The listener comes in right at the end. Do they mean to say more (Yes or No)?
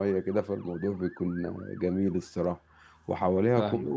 No